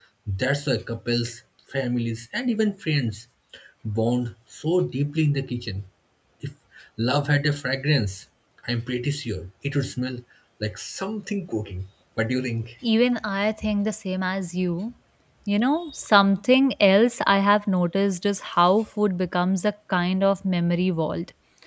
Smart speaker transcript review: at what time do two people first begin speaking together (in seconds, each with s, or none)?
none